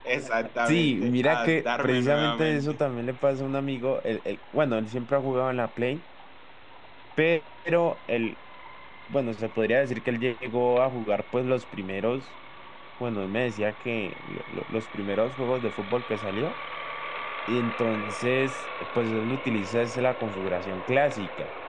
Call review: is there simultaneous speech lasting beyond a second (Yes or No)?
Yes